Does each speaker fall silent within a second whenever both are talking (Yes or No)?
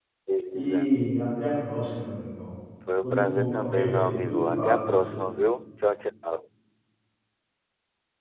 No